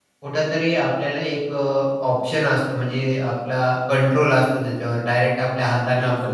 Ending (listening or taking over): listening